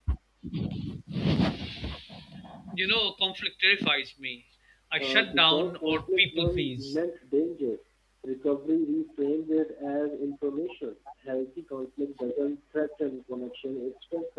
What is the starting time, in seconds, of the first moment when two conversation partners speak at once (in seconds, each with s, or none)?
5.0 s